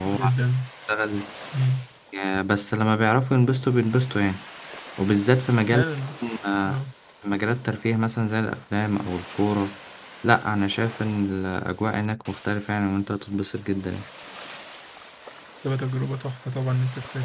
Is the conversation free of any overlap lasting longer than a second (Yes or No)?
Yes